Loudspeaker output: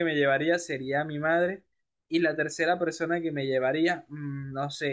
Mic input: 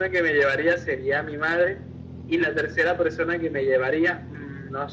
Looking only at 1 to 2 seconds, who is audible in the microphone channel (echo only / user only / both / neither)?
echo only